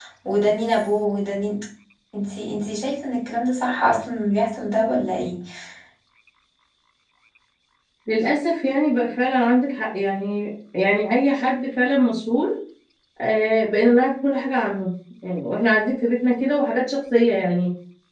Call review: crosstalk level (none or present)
none